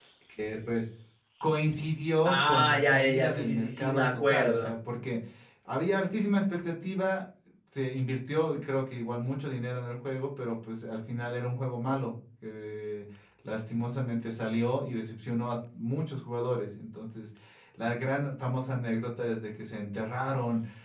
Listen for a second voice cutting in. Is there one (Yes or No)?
Yes